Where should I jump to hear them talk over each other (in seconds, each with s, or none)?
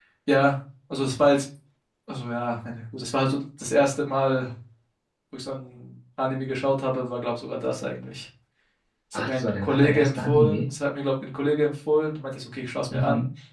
9.1 s